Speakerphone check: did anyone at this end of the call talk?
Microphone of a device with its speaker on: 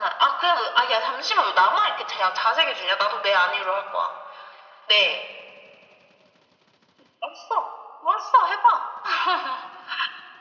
No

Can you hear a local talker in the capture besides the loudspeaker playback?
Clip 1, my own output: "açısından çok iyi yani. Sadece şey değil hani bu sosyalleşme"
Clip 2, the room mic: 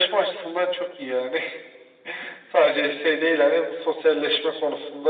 No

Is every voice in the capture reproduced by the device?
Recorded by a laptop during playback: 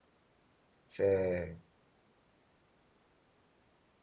No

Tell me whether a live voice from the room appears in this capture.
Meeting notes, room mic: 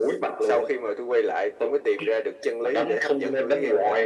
No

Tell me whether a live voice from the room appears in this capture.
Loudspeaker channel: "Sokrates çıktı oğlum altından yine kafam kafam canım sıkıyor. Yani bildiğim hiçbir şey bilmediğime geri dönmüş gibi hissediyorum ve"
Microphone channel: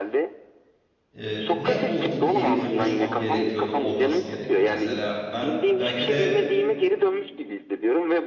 Yes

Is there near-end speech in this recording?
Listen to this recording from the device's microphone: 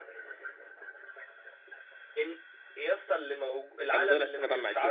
Yes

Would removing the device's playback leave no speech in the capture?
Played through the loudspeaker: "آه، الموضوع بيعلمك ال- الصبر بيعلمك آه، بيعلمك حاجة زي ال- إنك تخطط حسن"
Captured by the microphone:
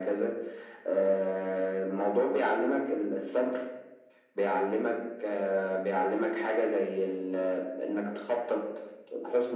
Yes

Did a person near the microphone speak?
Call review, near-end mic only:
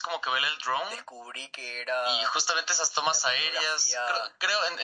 No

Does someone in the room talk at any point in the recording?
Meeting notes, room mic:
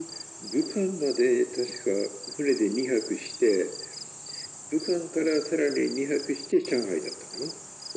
No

